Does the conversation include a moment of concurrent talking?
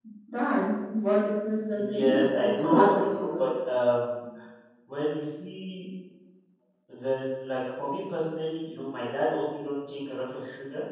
Yes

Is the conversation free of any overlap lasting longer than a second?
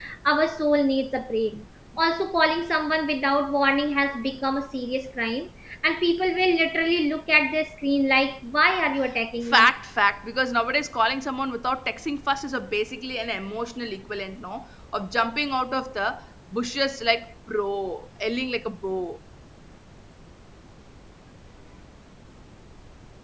Yes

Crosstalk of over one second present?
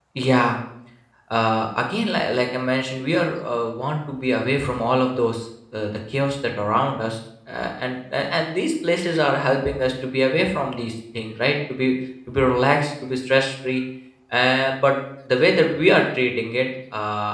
No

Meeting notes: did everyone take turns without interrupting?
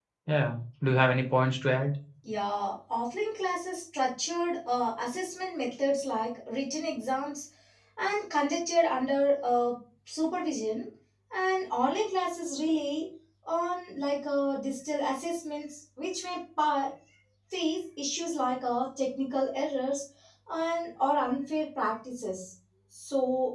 Yes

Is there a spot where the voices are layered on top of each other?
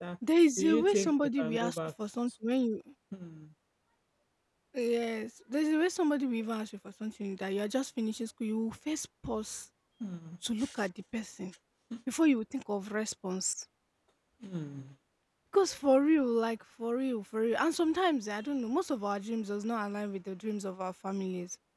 Yes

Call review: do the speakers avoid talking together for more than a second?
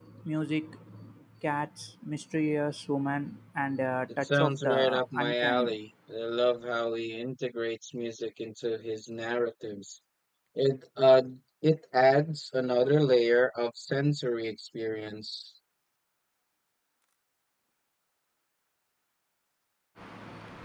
No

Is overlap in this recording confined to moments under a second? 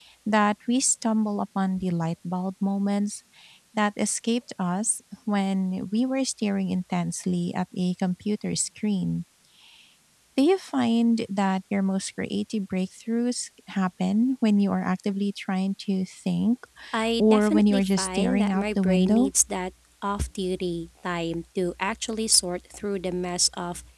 No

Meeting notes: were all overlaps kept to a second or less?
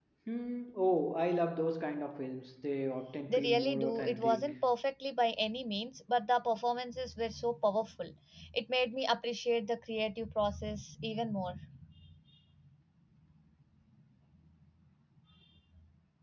No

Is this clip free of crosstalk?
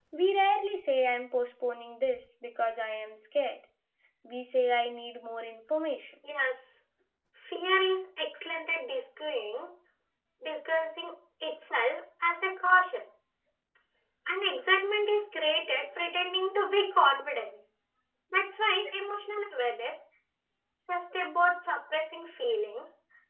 Yes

